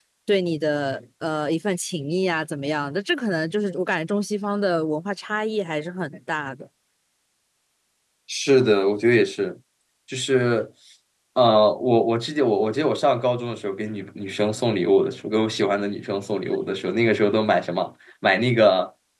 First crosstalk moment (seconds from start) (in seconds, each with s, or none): none